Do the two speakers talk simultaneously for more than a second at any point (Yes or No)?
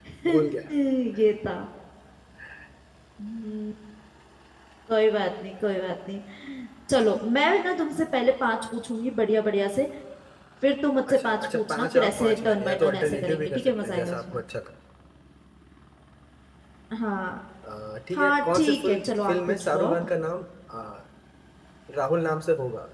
Yes